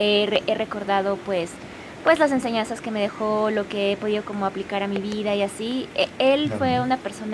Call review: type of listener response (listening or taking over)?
listening